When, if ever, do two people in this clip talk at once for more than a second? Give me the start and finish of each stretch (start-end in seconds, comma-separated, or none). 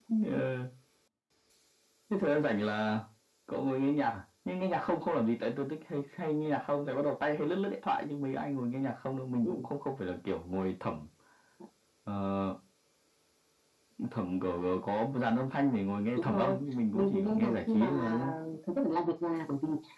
16.9-18.2